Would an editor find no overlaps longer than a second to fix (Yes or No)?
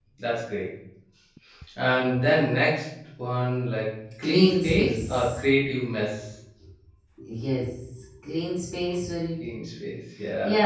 No